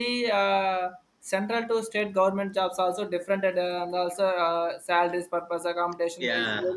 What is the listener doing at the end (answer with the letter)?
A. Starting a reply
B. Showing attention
B